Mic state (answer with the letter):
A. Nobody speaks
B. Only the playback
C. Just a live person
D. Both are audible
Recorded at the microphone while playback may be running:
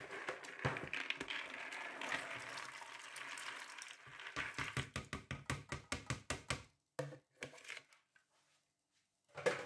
A